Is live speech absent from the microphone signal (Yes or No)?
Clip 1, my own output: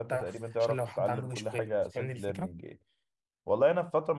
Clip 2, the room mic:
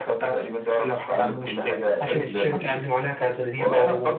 No